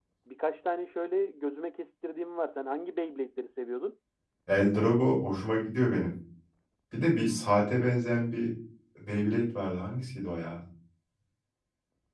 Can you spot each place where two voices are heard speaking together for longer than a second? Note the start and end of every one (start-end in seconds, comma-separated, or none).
none